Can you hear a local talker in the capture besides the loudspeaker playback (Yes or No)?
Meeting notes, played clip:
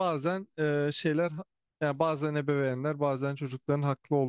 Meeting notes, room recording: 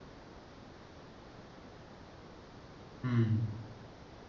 Yes